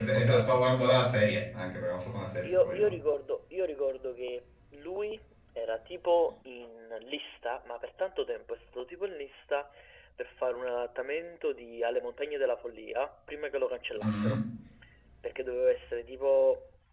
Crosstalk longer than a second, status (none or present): none